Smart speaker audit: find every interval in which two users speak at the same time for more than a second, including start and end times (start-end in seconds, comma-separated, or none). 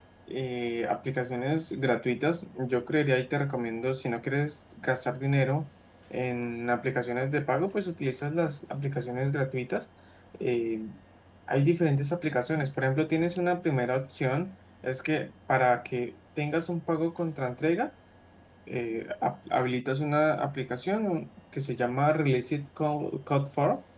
none